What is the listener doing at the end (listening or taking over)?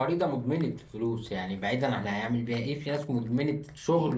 taking over